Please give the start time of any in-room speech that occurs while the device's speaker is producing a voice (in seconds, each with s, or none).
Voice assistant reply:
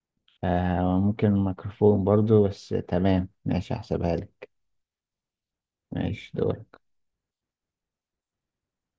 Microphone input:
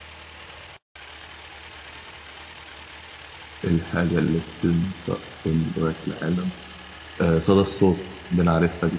3.6 s